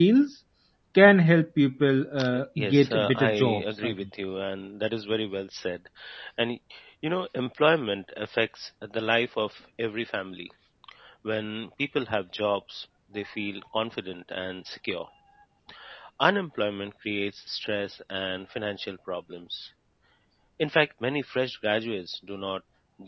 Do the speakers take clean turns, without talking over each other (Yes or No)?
No